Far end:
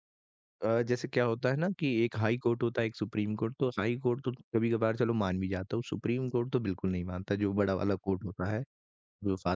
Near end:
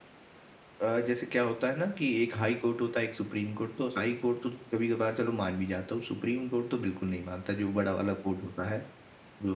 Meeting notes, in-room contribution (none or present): none